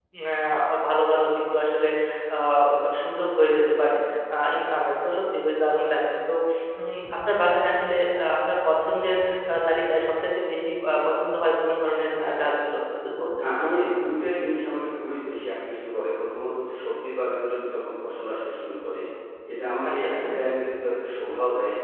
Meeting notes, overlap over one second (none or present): none